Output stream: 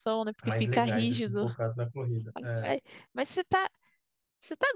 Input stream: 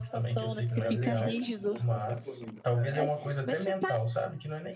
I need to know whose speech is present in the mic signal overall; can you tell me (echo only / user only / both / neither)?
both